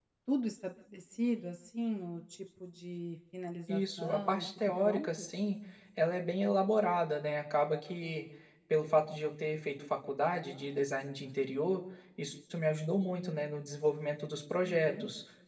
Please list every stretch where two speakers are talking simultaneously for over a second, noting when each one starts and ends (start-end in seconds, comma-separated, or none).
3.7-5.1